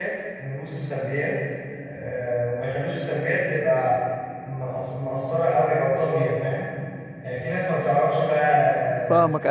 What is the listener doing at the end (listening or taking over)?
listening